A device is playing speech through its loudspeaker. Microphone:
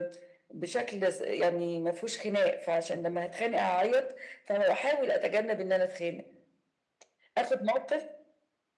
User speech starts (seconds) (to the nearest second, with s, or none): none